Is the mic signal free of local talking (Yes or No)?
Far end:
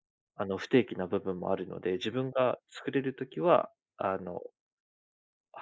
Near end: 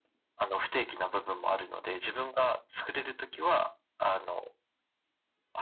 Yes